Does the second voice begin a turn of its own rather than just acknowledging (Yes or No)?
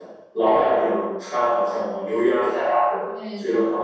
No